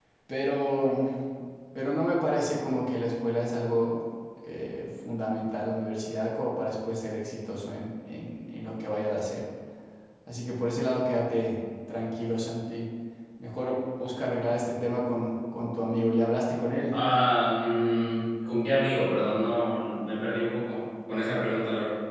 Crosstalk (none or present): none